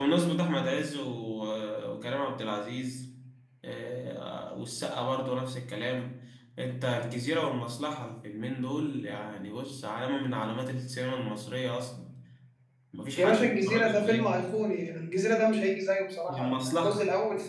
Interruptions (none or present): present